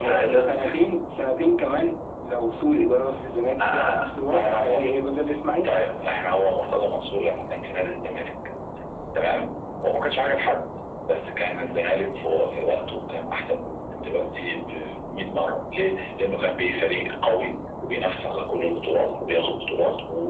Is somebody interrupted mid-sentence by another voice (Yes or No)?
Yes